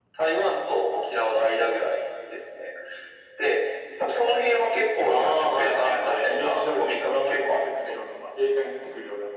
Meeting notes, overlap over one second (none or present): present